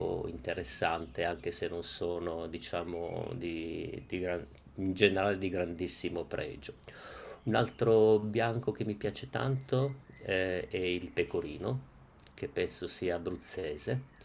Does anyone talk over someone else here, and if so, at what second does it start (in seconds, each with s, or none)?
none